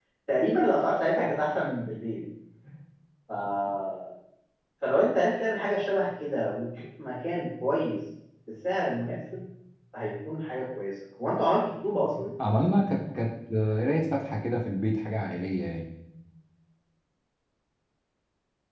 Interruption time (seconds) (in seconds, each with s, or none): none